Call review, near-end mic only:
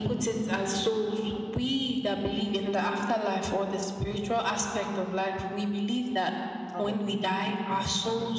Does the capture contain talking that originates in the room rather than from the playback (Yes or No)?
Yes